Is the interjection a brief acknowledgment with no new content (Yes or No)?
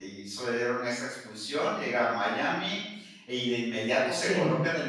Yes